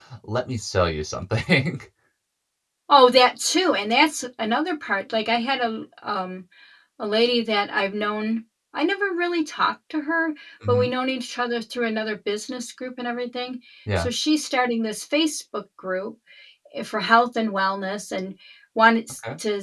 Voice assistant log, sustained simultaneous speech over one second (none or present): none